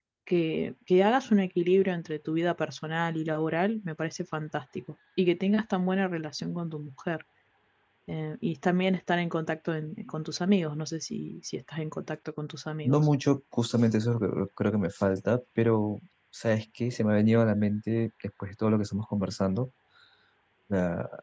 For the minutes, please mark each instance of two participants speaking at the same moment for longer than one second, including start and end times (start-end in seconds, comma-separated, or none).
none